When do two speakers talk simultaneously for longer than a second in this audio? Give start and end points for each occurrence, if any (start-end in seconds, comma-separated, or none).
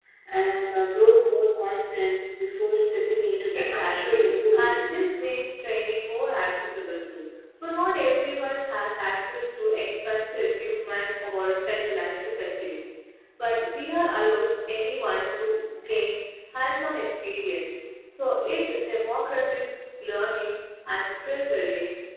3.5-4.8